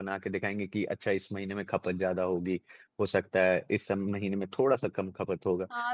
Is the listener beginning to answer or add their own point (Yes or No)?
Yes